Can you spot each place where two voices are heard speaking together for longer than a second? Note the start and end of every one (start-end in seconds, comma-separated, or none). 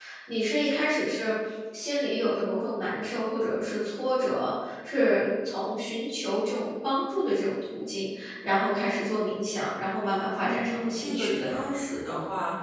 10.4-11.6